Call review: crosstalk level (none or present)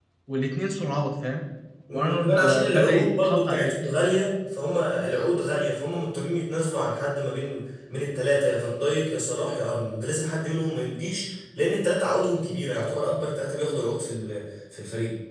present